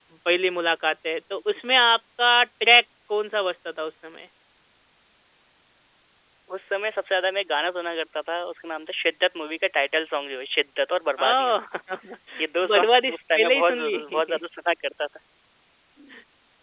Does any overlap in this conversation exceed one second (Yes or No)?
Yes